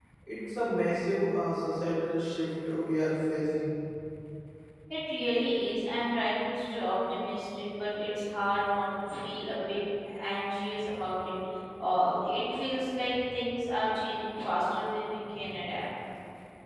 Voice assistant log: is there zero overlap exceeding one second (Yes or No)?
Yes